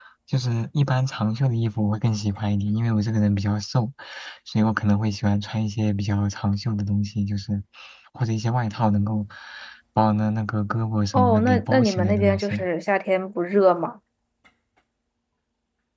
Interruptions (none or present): present